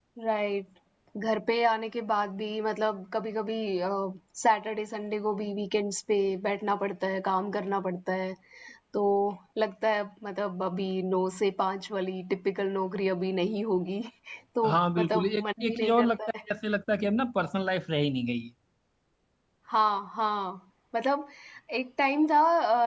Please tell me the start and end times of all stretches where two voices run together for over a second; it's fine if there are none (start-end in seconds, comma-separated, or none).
14.7-16.2